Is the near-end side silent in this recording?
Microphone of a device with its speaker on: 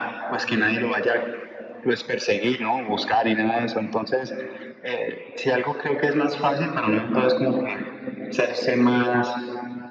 Yes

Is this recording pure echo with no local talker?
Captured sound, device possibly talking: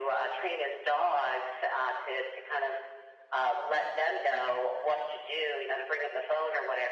Yes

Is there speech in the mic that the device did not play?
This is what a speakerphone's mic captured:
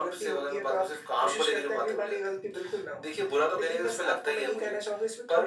No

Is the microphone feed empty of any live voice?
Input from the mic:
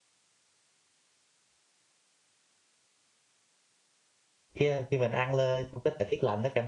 No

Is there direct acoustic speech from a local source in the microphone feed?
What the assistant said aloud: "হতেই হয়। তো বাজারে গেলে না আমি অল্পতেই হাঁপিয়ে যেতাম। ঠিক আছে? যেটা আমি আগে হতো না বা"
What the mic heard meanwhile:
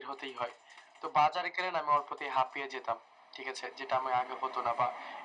No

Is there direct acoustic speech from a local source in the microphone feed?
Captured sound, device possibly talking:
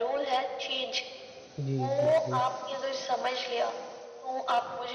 Yes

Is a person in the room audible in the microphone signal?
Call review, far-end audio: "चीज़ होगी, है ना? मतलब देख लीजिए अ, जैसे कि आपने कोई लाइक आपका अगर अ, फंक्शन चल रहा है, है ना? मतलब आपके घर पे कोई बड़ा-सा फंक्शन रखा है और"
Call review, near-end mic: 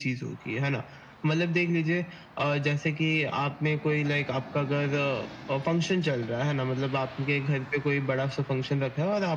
No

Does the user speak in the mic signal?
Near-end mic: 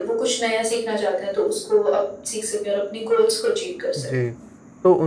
Yes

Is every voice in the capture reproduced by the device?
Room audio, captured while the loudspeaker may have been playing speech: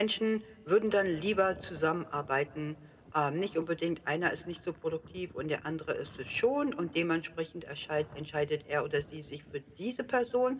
Yes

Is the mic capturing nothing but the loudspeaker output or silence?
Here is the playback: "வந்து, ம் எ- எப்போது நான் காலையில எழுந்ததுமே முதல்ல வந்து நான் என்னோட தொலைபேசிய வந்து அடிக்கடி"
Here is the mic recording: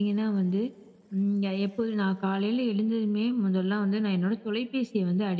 Yes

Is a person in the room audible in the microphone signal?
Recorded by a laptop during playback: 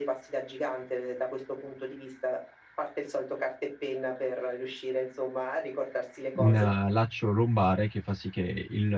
Yes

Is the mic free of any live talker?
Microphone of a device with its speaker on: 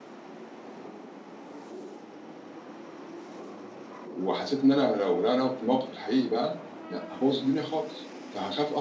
No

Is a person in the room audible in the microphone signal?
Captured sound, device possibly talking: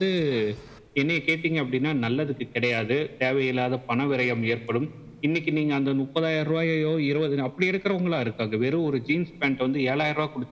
No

